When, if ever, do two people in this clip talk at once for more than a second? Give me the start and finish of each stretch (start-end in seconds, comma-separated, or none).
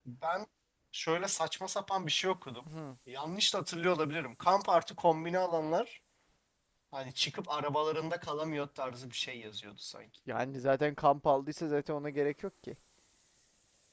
none